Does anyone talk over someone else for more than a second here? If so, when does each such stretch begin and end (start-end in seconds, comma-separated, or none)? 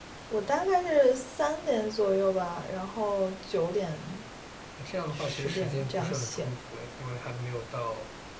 5.1-6.5